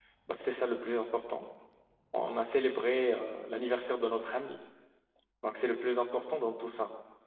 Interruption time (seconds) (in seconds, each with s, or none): none